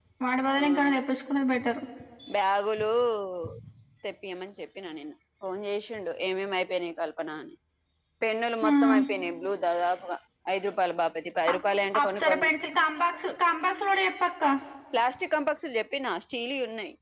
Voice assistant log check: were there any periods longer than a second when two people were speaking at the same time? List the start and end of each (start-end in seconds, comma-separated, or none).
none